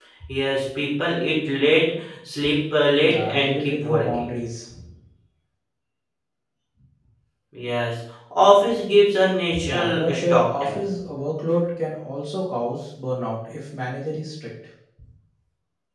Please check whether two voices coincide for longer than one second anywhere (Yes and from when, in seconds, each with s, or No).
Yes, from 3.0 s